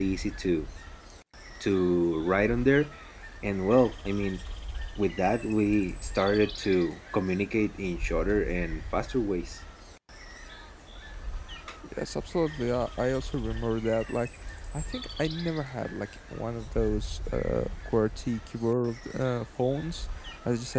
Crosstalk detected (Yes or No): No